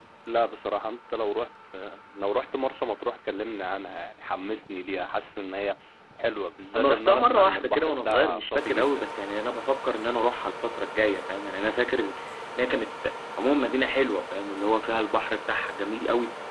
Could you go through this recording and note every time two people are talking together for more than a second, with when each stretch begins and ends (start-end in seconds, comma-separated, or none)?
6.7-9.0